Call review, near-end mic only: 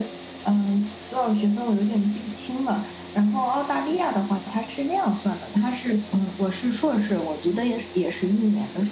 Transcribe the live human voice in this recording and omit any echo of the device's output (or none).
none